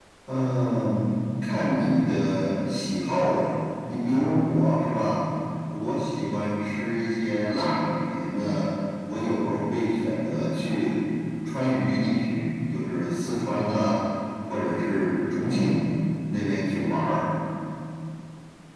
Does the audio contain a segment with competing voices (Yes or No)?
No